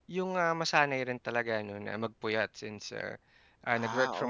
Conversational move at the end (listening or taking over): listening